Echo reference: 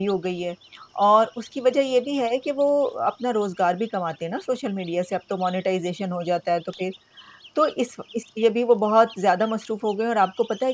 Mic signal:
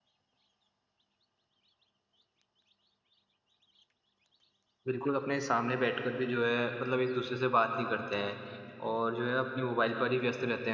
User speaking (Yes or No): Yes